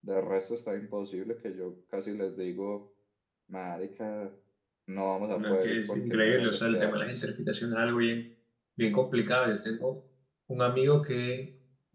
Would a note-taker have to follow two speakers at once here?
Yes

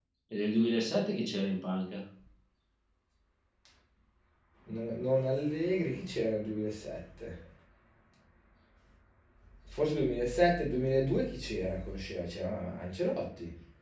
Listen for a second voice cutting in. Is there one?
No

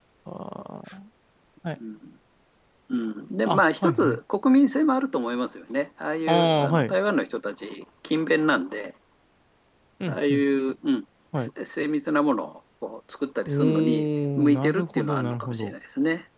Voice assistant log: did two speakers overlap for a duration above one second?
Yes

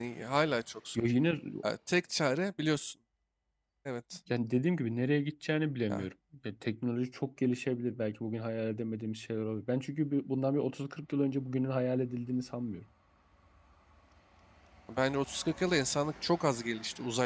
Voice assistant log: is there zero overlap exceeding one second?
Yes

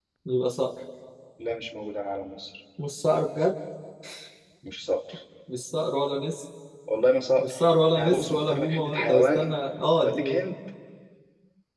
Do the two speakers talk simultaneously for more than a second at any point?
Yes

